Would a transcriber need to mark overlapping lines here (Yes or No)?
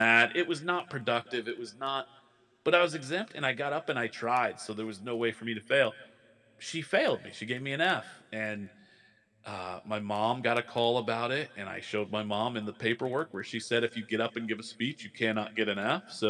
No